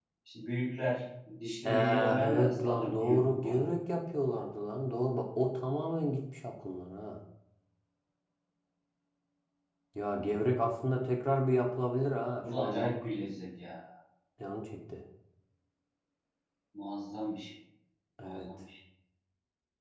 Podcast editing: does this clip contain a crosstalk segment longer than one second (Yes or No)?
Yes